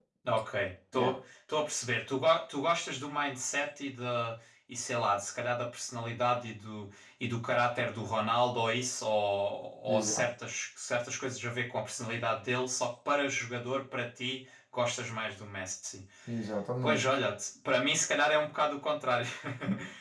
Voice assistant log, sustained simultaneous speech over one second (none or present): none